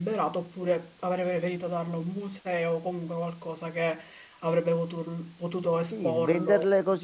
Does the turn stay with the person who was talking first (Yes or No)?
No